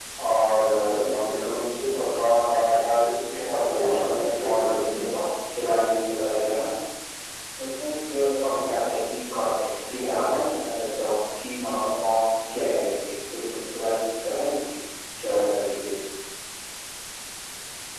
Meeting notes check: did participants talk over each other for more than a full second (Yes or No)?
Yes